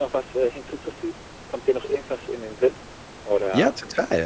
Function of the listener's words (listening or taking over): taking over